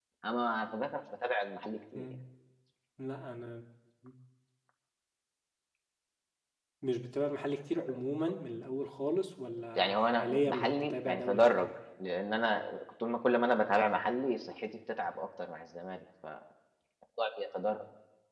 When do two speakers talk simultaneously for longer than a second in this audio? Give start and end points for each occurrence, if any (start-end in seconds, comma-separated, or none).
9.8-11.7